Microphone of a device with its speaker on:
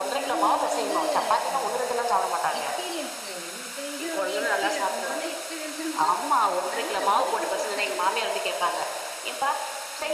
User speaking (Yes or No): Yes